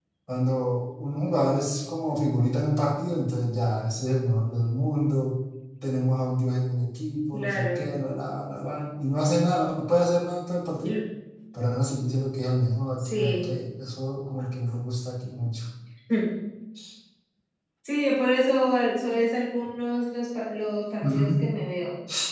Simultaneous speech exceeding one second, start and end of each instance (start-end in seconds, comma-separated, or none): none